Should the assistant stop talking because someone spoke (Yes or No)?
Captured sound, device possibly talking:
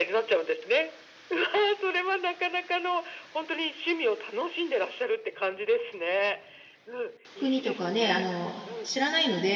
Yes